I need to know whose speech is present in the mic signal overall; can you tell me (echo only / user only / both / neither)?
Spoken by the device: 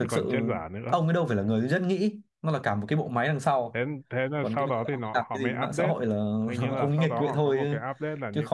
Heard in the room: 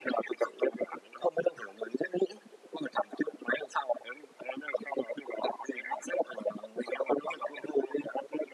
echo only